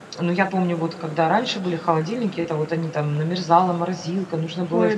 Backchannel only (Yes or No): No